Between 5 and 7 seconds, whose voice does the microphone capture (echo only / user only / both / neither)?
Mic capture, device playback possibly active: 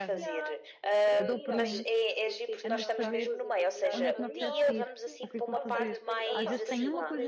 both